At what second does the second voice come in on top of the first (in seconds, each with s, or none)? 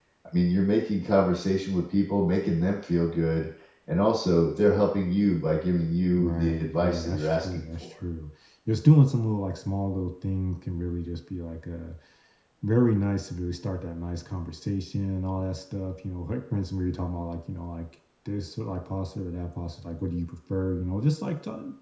6.1 s